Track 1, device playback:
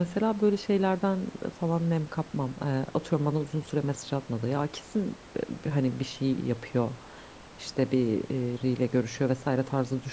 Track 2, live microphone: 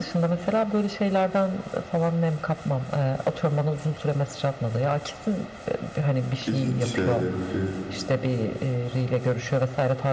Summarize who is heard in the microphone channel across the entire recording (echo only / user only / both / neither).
both